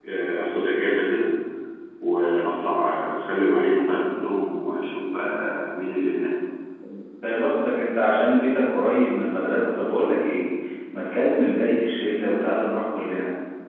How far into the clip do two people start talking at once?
none

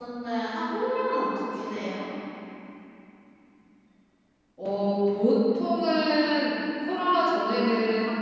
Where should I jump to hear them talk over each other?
none

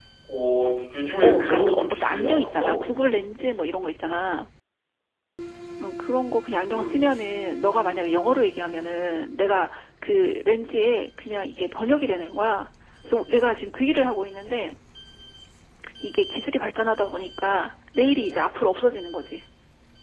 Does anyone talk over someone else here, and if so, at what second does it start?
1.2 s

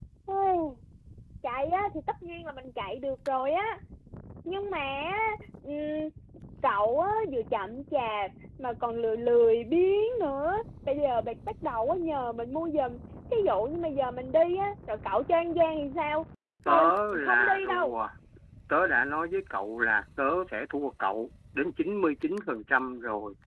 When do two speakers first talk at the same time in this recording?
16.7 s

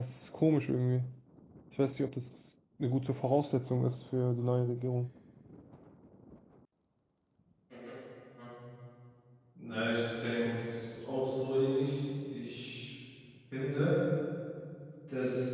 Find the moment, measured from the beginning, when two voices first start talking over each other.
none

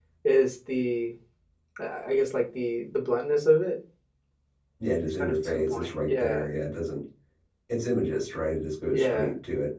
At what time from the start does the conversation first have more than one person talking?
5.2 s

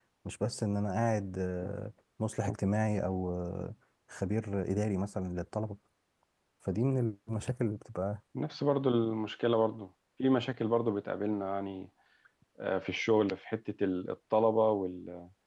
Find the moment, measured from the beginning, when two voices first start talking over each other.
none

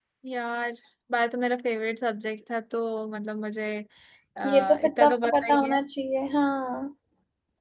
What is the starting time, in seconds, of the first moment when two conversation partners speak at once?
4.4 s

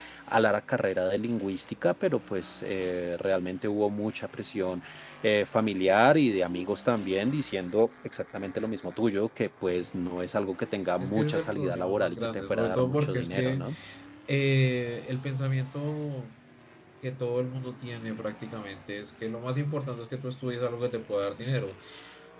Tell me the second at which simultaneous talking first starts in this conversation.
11.0 s

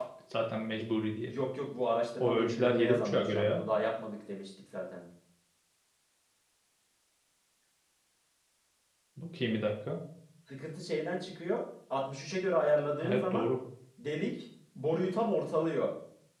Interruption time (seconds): 2.2 s

